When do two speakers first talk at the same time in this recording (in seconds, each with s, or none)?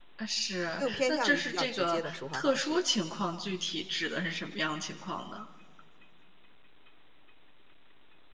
0.8 s